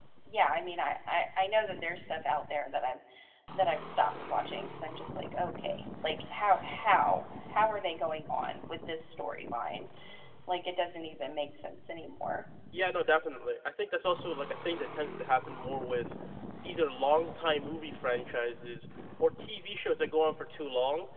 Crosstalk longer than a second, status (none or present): none